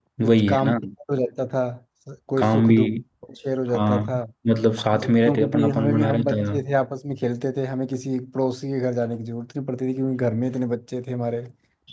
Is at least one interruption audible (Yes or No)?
Yes